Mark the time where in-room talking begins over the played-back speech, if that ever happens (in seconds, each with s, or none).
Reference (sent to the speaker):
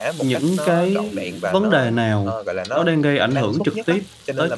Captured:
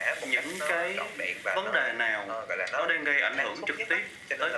none